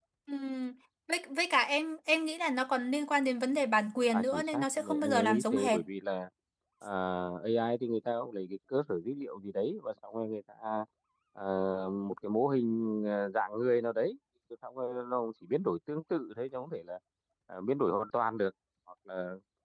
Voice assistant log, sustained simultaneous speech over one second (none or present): present